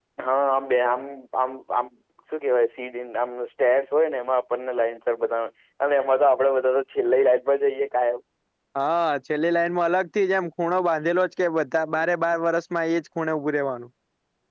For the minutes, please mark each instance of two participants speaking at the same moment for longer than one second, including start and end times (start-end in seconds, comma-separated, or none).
none